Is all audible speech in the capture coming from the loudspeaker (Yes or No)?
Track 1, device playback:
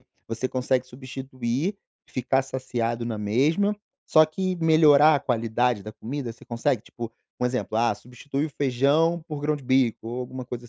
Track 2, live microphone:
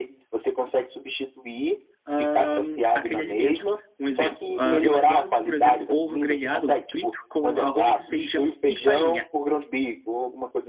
No